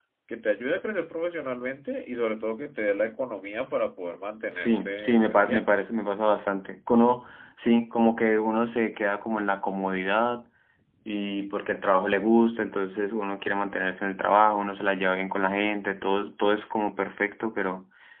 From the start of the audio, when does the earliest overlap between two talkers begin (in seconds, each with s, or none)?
4.5 s